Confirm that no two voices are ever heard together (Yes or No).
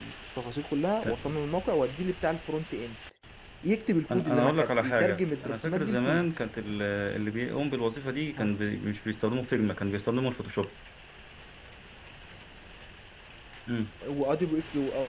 No